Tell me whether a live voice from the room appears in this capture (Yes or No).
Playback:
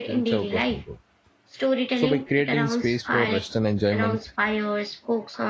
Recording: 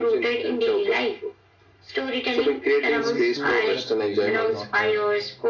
Yes